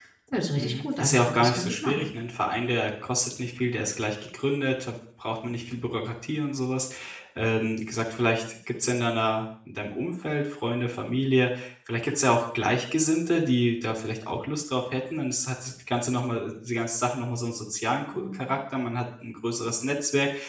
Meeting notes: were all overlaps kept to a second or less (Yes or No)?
No